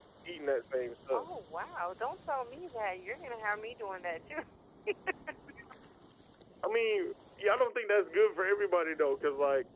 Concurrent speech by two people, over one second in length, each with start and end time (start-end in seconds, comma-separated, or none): none